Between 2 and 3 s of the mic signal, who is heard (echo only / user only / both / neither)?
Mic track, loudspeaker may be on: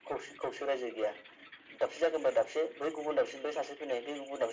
echo only